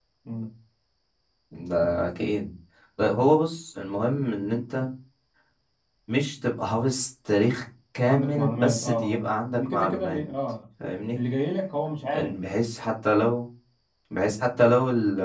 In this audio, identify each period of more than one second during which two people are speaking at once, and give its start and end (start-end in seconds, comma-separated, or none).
8.0-10.2